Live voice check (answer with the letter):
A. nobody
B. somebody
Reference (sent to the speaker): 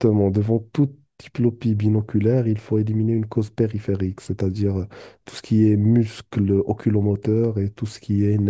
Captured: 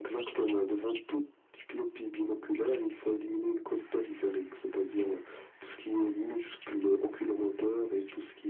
A